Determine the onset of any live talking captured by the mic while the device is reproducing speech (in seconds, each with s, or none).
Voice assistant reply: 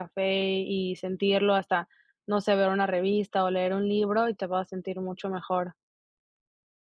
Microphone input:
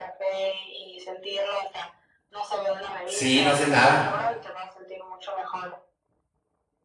3.0 s